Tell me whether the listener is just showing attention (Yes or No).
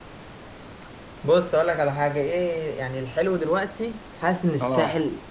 Yes